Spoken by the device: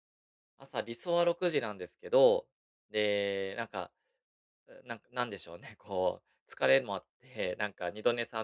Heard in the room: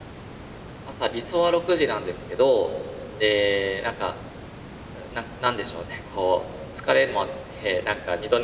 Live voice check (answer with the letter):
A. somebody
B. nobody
B